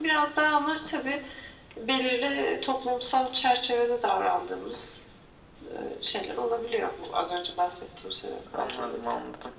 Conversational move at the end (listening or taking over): taking over